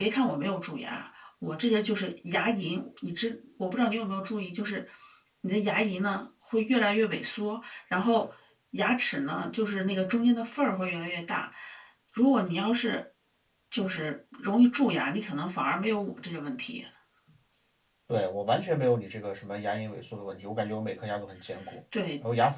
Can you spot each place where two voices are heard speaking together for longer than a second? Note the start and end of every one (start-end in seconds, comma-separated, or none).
none